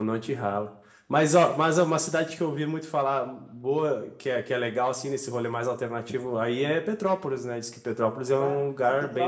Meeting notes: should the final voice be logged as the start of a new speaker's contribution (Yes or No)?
Yes